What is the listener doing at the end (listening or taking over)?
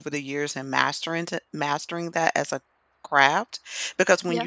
listening